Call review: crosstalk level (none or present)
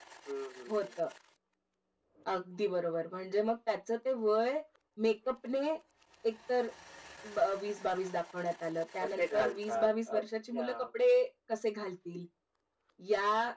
present